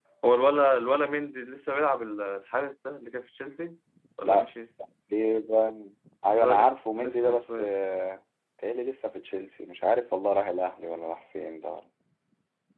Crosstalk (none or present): present